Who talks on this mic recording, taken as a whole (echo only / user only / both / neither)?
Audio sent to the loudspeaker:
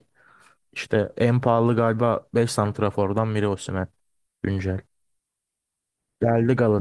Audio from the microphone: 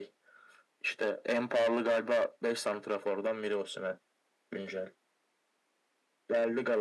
echo only